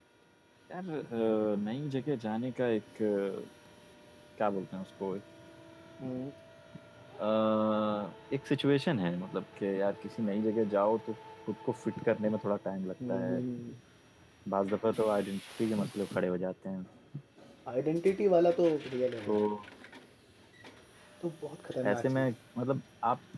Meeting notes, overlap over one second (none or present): none